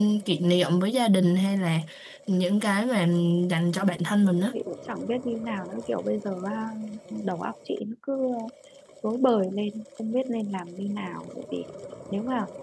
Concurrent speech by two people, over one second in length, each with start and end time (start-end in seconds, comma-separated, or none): none